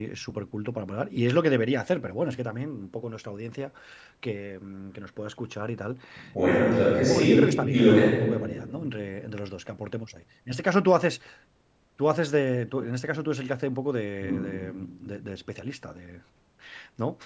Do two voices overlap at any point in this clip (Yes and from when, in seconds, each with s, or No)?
Yes, from 6.5 s